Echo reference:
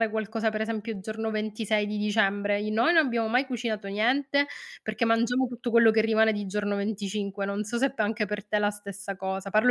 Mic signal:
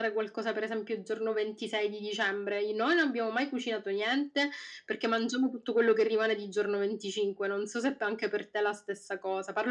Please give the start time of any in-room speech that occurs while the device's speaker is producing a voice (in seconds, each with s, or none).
none